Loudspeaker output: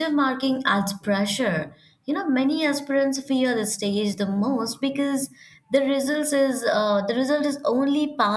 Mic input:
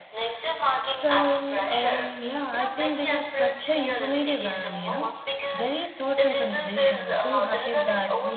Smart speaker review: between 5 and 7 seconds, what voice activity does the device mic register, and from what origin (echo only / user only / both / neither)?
both